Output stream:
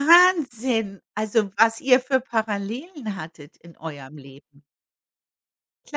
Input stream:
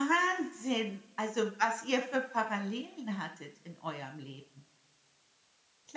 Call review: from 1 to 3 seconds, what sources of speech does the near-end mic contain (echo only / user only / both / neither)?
echo only